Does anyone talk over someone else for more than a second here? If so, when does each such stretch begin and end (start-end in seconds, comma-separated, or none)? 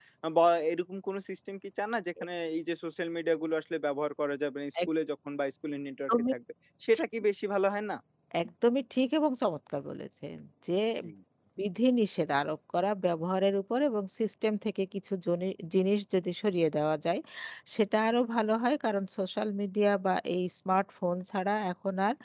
none